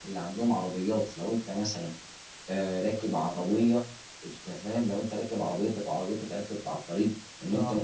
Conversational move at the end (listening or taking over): listening